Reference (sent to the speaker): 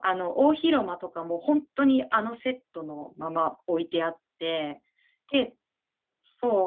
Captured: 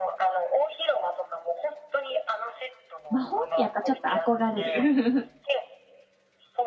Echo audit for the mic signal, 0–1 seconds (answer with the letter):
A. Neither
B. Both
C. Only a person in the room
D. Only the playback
D